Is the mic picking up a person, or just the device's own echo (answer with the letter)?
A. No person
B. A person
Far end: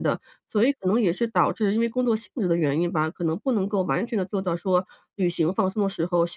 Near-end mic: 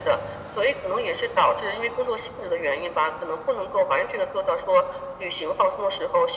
A